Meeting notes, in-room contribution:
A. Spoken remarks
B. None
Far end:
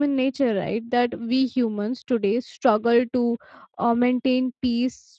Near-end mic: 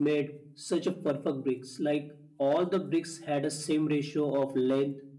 A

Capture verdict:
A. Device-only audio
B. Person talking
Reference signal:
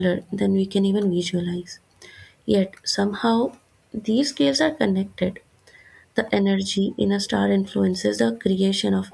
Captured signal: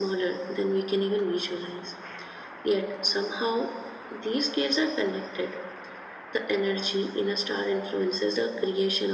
A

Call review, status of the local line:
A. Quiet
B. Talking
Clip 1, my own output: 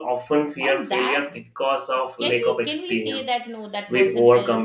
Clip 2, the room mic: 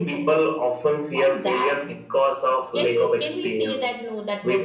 A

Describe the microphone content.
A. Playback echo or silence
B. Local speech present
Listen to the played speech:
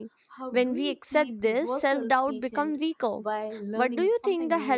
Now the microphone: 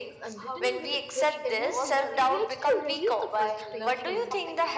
B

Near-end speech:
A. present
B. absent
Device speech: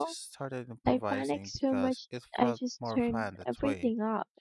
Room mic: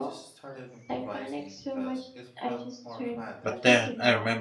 A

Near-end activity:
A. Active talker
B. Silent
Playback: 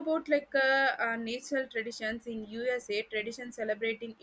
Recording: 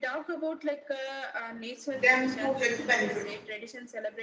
A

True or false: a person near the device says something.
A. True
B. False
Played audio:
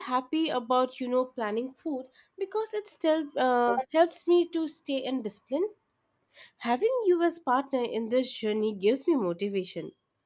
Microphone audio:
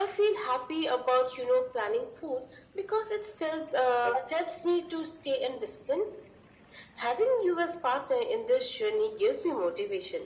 B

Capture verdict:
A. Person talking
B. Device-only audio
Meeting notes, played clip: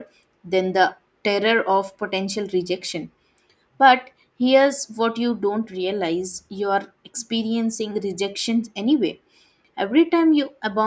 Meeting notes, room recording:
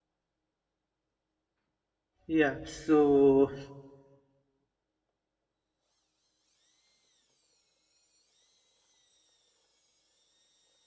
A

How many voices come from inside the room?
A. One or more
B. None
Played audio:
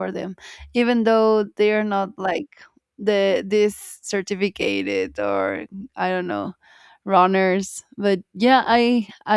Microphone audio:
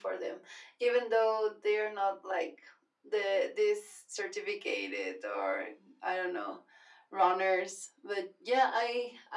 B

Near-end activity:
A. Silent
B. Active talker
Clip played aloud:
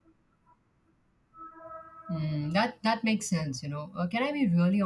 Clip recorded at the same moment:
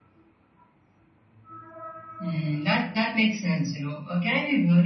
A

